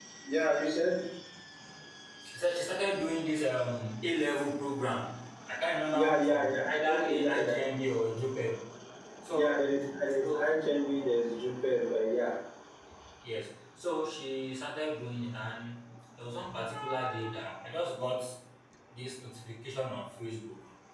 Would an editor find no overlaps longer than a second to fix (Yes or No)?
No